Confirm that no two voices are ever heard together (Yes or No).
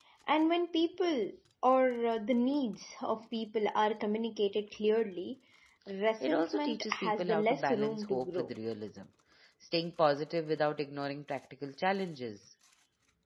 No